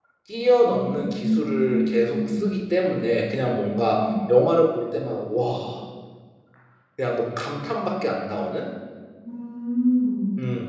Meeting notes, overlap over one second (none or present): present